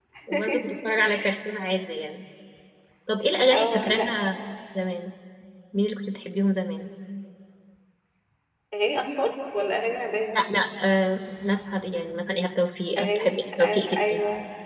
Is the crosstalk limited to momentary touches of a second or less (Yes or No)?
No